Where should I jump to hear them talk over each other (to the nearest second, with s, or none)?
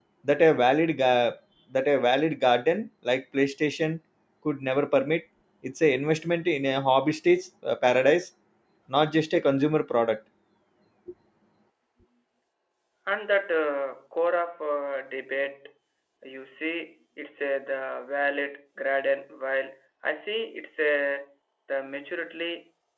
none